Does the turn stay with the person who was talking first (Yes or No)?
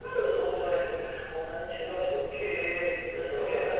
Yes